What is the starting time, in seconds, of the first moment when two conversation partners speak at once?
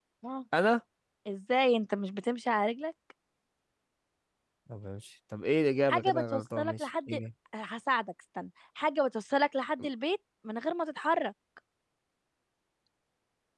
5.9 s

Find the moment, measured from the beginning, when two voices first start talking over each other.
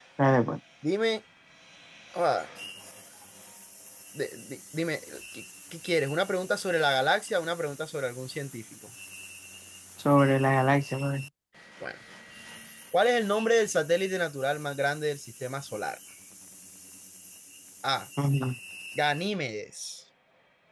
none

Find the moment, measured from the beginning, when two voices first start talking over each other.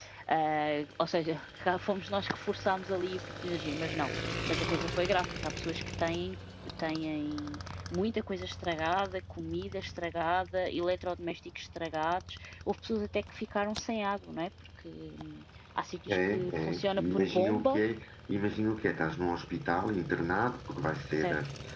16.1 s

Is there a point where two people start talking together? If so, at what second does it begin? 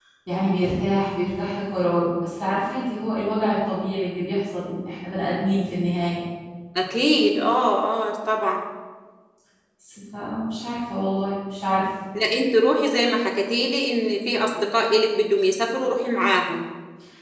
none

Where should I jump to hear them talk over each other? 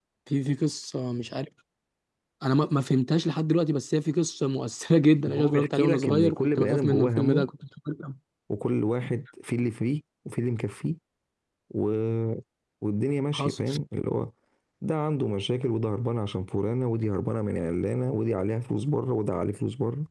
5.4 s

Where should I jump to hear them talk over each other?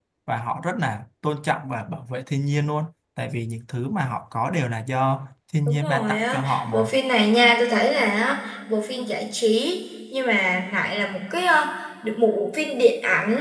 5.7 s

